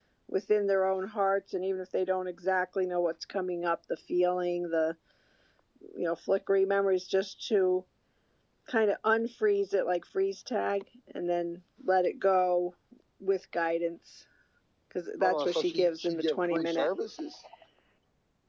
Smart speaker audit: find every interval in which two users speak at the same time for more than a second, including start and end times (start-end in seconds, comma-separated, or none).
15.2-16.9